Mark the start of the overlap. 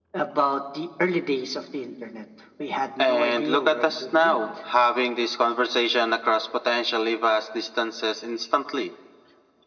3 s

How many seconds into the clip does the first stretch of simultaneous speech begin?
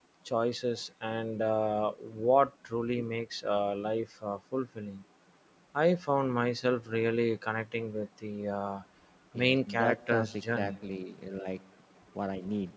9 s

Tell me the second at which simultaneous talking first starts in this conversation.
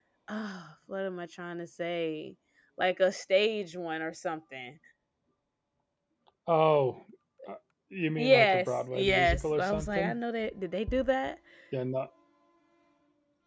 8 s

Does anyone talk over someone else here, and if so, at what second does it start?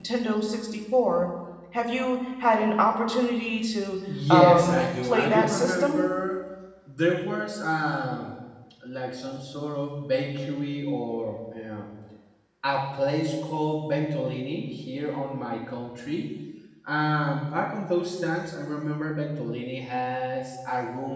4 s

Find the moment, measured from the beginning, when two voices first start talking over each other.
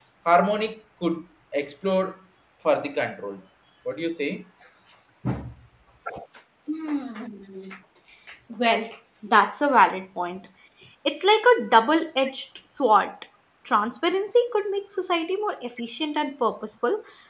none

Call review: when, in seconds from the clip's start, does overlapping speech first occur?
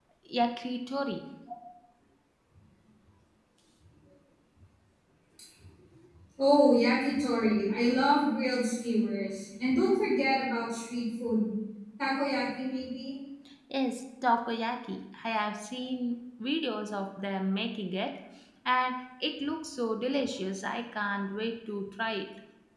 none

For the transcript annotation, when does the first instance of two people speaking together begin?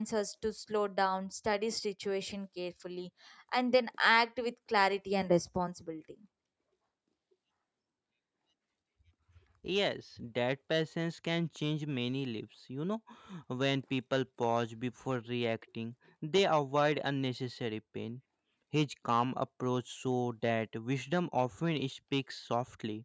none

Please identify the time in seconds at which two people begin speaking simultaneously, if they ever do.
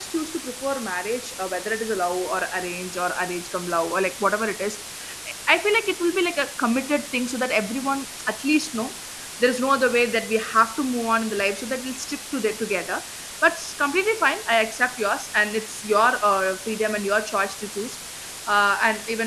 none

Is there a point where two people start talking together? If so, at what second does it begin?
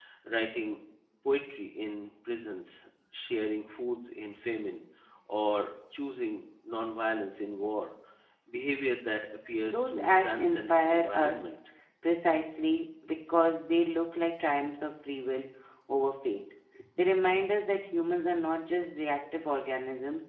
10 s

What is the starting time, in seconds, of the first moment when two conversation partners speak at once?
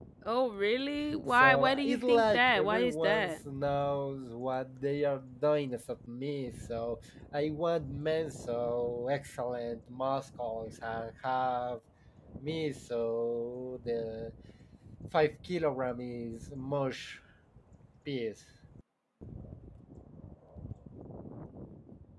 1 s

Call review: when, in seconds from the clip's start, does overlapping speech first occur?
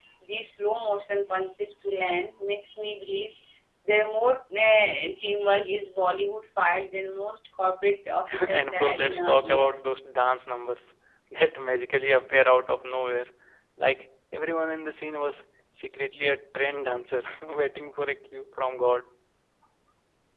8 s

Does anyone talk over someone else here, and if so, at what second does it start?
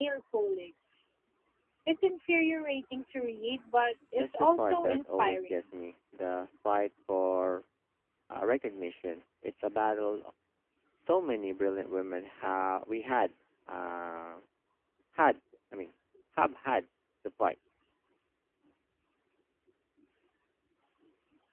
4 s

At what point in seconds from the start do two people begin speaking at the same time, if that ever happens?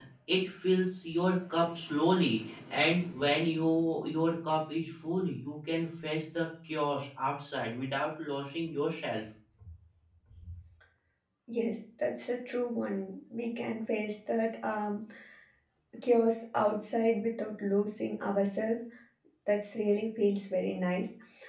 none

